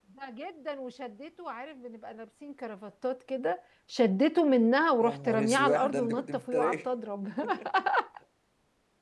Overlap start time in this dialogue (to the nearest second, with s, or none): 5 s